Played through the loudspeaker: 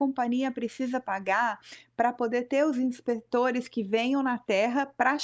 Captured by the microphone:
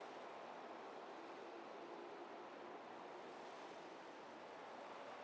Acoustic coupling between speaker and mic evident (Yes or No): No